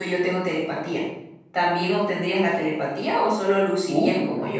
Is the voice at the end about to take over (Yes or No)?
Yes